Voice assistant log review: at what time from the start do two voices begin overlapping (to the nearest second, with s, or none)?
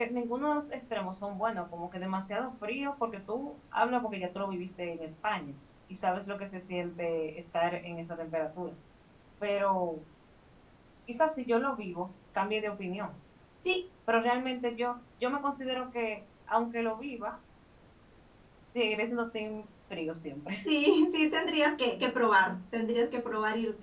none